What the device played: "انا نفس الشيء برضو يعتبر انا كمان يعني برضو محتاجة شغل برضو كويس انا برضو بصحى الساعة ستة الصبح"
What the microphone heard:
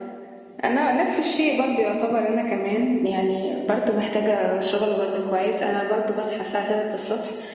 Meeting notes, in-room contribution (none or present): none